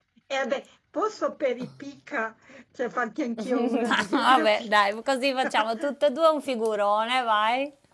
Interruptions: present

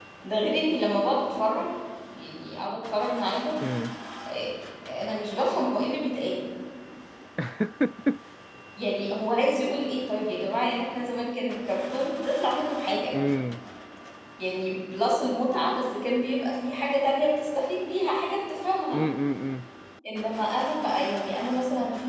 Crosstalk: none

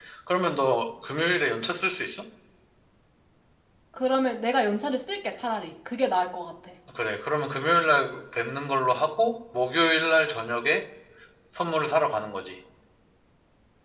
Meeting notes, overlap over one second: none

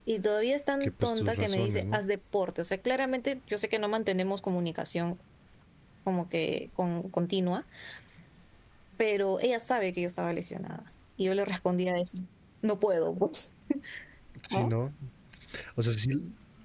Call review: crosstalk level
present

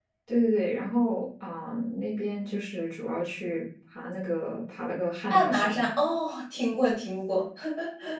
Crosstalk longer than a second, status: none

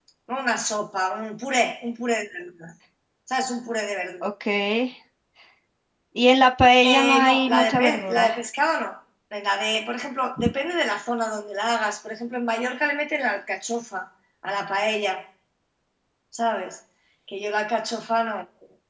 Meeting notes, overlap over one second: present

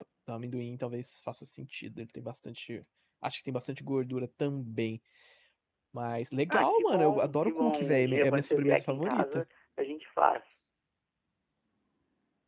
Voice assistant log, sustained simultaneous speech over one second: present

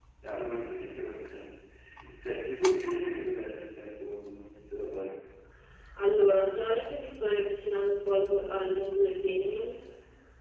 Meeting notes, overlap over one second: none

